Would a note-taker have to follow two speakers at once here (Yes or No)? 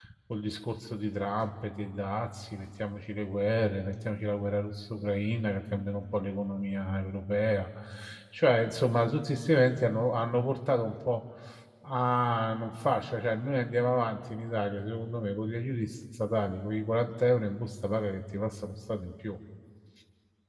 No